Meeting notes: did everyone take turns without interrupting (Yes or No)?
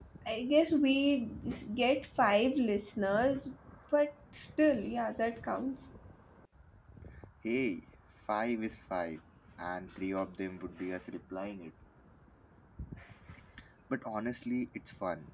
Yes